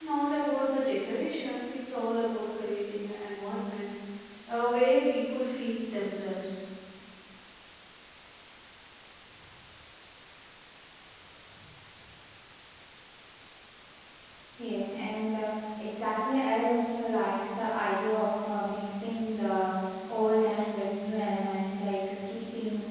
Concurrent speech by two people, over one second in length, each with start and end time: none

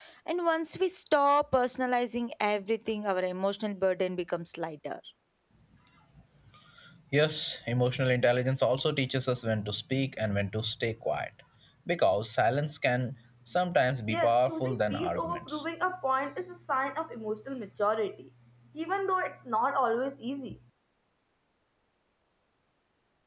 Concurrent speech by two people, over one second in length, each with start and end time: 14.1-15.6

